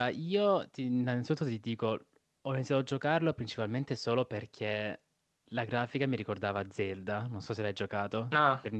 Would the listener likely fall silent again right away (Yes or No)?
No